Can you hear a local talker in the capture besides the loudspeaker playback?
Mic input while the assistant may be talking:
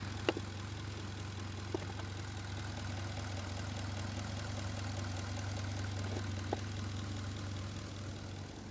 No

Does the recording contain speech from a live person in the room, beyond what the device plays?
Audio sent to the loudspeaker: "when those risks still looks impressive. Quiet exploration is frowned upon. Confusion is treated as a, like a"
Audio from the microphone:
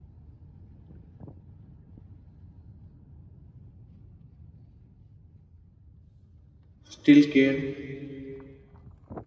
Yes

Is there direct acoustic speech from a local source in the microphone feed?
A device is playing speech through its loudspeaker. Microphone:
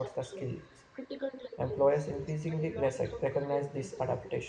Yes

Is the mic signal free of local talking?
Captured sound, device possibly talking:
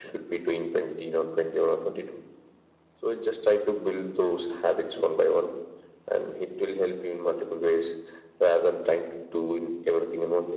Yes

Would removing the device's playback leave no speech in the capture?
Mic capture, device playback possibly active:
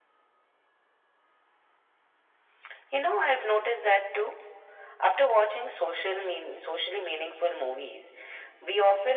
Yes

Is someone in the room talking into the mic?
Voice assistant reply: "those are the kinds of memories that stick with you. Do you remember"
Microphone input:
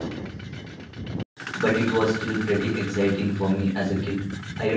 Yes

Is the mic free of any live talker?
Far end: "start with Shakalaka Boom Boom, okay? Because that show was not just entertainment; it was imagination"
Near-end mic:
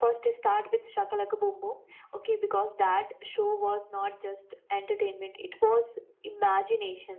Yes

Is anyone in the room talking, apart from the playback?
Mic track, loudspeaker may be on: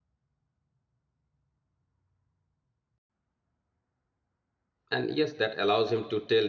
Yes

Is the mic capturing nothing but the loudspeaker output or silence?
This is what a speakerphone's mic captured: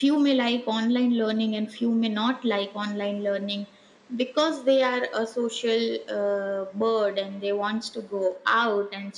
Yes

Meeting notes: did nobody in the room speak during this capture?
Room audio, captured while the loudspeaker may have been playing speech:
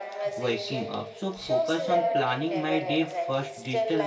No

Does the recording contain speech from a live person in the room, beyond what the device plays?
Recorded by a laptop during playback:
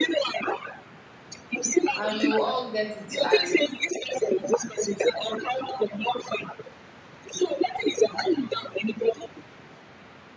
Yes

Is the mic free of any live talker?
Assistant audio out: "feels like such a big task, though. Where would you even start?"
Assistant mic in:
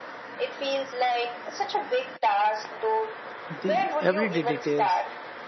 No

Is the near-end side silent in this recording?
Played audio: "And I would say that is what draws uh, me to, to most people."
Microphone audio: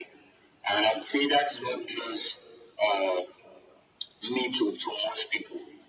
Yes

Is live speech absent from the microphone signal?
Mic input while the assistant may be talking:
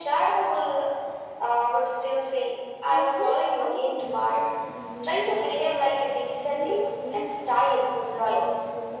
No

